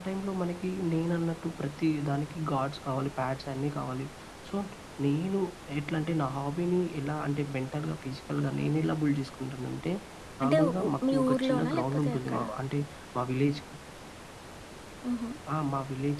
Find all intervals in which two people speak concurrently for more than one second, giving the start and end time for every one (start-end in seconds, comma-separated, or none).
10.4-12.4